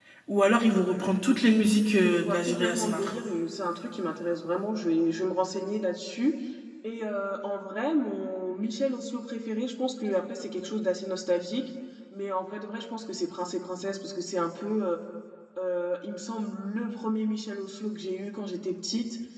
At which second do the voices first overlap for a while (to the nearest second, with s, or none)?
2 s